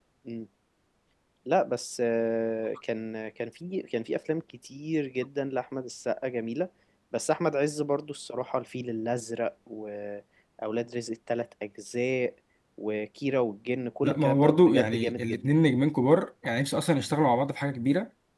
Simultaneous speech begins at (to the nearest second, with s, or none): 14 s